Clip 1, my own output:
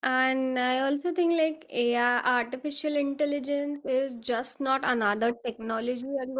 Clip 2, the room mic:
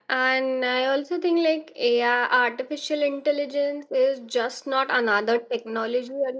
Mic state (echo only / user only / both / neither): echo only